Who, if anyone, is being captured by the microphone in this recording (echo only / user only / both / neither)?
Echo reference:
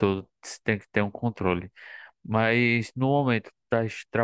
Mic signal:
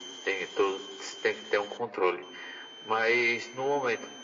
echo only